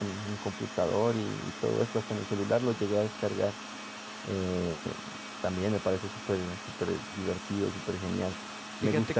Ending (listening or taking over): listening